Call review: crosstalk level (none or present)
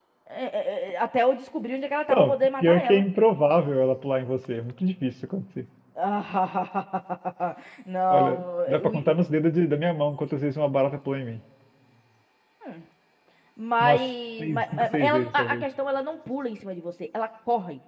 present